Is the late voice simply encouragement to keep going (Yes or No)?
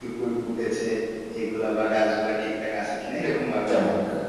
No